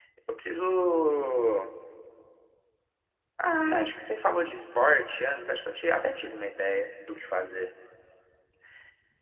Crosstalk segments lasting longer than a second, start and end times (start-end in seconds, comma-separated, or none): none